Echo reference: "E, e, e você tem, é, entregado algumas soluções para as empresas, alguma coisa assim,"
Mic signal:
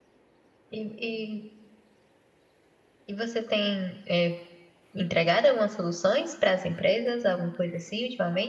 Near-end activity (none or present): none